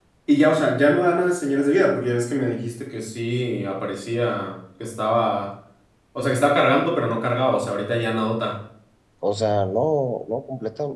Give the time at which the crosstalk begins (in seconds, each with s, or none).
none